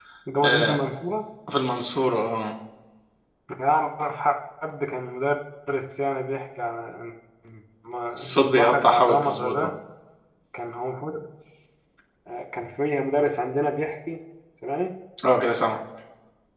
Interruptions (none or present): present